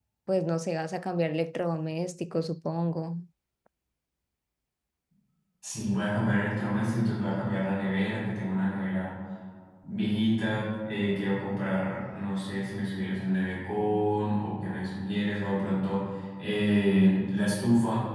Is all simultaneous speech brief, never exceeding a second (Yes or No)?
Yes